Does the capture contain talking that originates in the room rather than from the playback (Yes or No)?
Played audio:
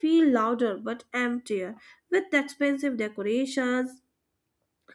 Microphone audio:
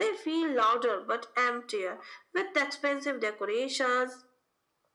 No